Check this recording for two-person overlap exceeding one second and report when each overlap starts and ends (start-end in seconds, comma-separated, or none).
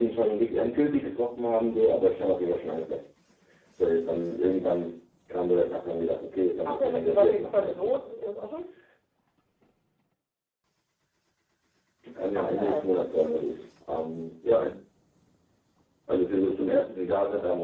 6.7-8.0